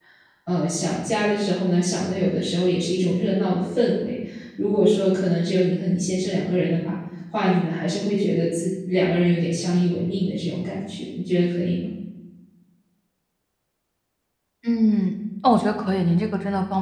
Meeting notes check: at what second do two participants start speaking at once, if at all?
none

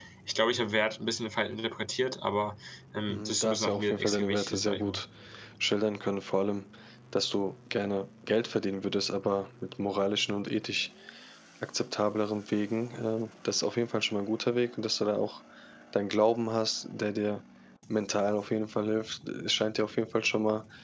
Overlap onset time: 3.1 s

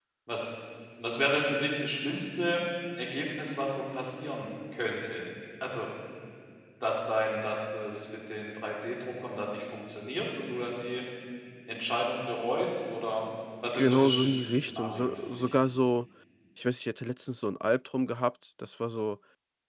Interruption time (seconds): 13.7 s

